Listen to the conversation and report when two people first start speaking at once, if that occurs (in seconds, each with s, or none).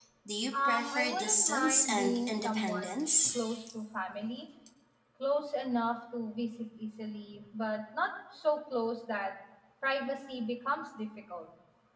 0.7 s